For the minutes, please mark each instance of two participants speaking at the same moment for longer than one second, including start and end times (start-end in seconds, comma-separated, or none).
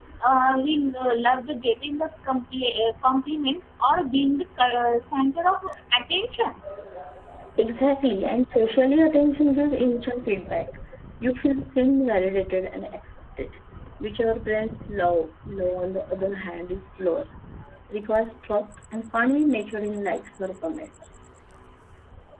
none